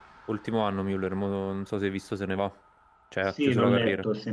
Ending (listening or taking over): taking over